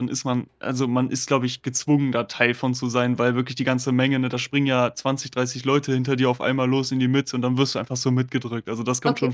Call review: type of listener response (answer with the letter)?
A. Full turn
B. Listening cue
A